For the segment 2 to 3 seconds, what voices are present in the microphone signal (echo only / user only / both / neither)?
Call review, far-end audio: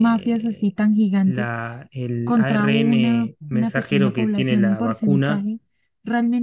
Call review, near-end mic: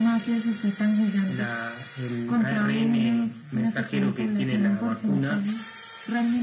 echo only